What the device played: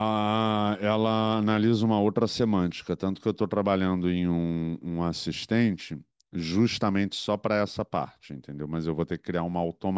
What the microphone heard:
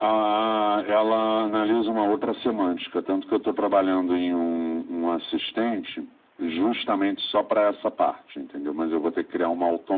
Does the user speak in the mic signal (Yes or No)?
No